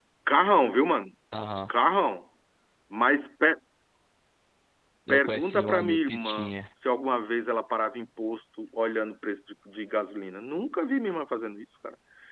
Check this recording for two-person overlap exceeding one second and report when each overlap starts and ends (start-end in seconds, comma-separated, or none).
5.1-6.5